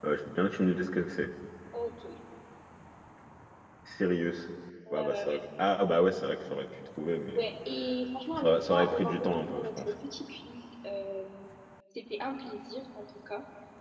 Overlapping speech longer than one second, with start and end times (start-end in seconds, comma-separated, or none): 8.4-9.9